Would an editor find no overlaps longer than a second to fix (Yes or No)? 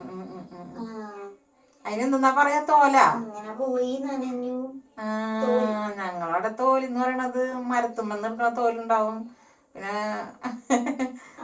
Yes